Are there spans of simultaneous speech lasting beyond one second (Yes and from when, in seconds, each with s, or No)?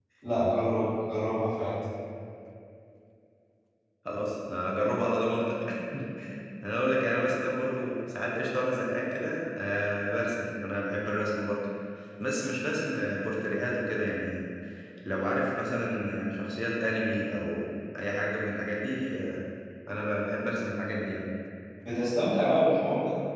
No